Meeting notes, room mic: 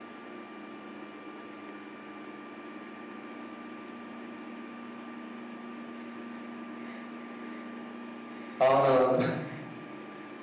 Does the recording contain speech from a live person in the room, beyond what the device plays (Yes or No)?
Yes